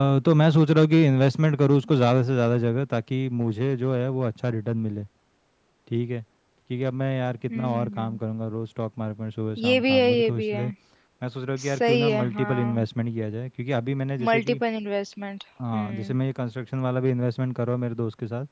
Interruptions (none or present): present